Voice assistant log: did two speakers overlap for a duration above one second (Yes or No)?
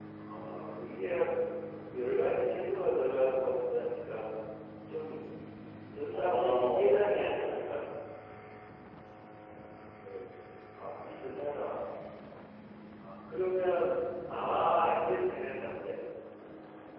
Yes